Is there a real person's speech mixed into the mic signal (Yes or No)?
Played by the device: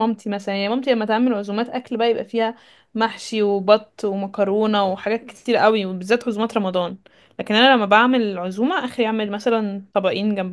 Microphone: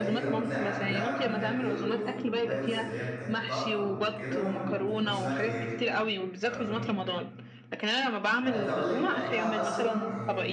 Yes